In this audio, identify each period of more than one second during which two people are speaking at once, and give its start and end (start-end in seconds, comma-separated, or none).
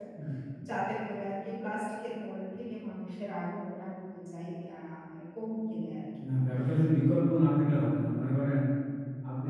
none